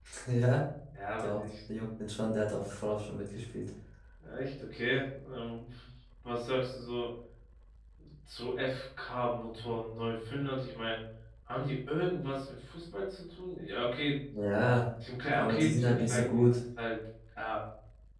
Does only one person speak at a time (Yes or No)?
No